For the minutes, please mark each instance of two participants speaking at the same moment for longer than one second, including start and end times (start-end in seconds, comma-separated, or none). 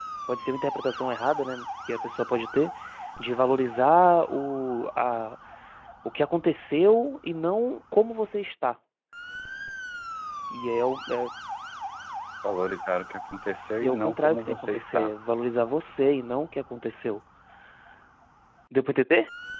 13.8-15.1